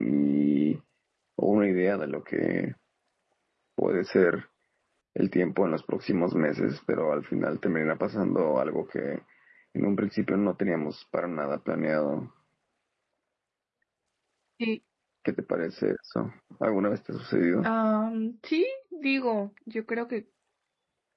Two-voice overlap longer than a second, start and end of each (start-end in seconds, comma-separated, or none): none